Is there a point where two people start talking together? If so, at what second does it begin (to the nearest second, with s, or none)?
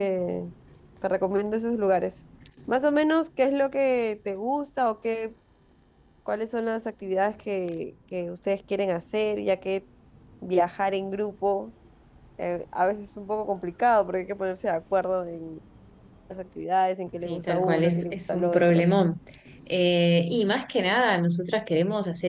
17 s